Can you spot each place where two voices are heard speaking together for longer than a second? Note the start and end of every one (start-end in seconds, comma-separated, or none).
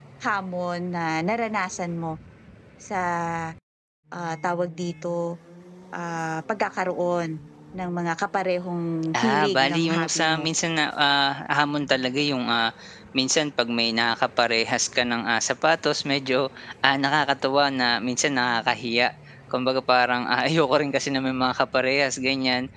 9.2-10.5